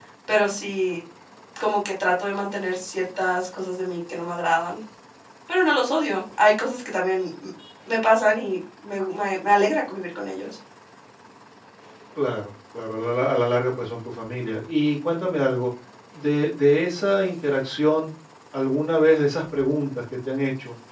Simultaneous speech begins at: none

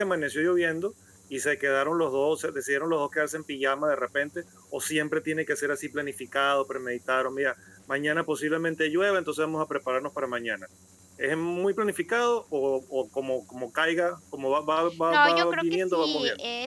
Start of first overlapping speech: 15 s

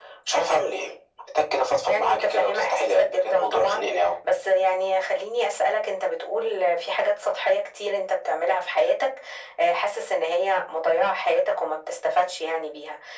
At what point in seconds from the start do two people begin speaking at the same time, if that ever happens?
2 s

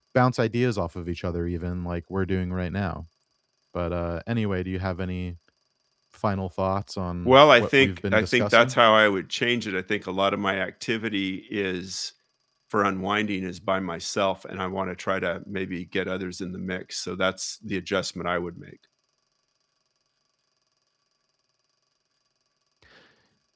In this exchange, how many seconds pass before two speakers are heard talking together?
7 s

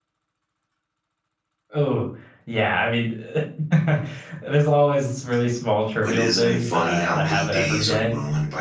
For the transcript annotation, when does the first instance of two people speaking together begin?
6 s

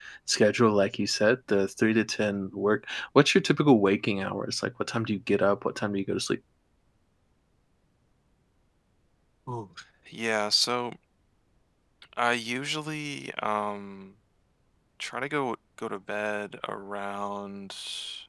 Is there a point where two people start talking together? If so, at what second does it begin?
none

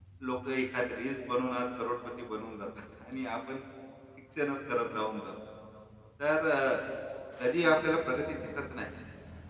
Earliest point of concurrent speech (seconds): none

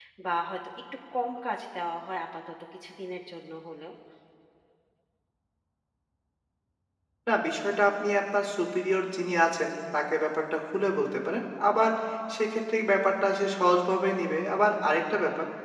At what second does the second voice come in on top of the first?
none

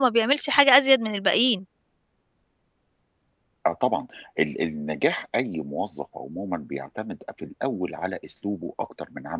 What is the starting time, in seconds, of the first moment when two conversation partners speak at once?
none

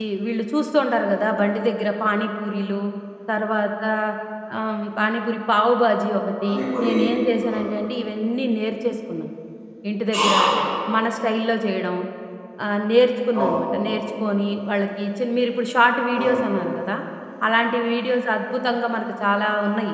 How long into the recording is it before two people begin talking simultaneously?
6 s

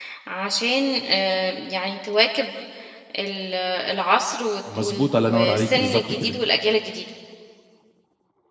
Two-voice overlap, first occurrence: 5 s

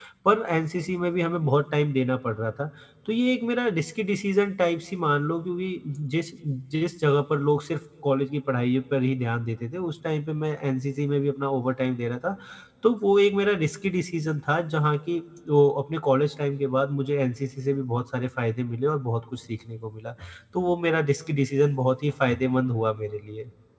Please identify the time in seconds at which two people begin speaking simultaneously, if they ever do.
none

